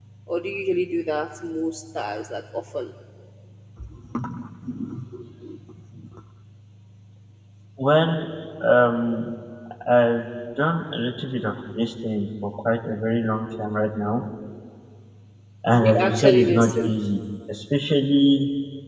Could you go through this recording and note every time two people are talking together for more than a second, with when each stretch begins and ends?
15.7-17.0

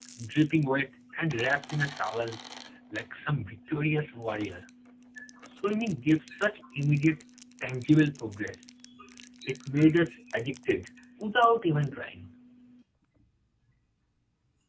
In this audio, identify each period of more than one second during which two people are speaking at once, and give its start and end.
none

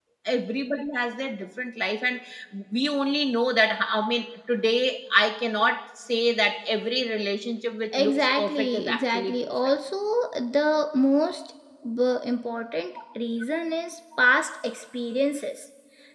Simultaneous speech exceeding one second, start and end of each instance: 7.9-9.5

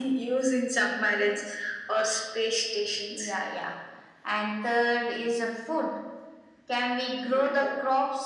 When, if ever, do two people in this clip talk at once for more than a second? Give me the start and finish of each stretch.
none

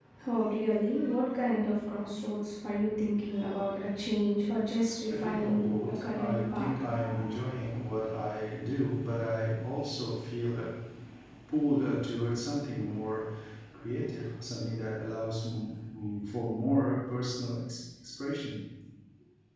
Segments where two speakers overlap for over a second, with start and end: 5.1-6.8

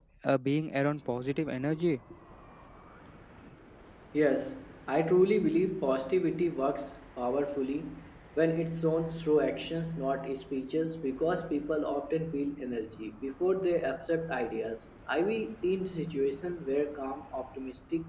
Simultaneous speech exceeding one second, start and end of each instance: none

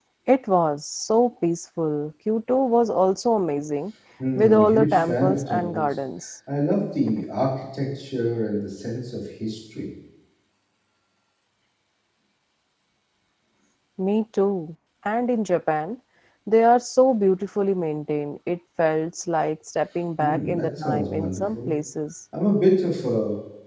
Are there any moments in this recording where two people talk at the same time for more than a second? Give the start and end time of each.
4.4-6.0, 20.2-21.7

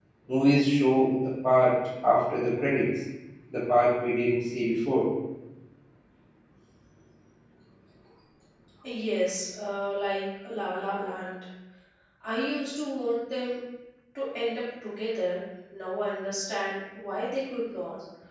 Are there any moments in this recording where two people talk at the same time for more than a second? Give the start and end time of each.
none

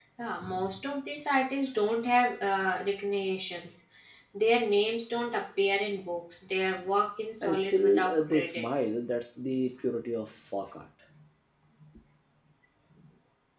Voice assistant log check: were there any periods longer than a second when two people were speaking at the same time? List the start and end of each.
7.4-8.7

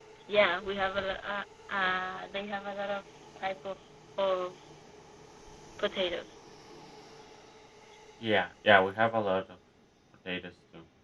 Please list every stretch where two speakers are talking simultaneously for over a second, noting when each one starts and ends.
none

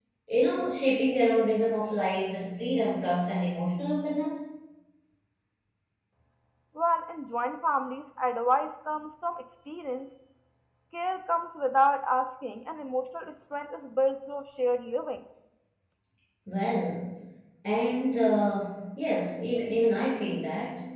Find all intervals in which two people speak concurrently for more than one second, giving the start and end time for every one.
none

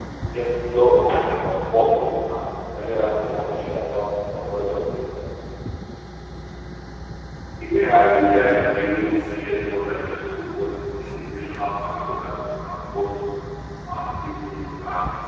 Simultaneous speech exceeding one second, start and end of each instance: none

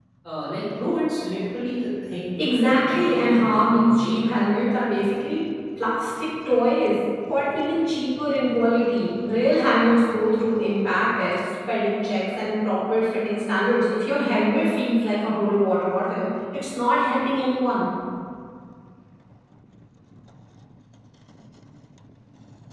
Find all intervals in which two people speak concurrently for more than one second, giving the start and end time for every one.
2.4-4.3

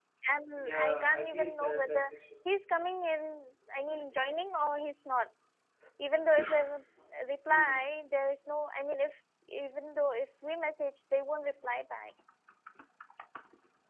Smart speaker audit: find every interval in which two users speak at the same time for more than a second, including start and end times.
0.6-2.1

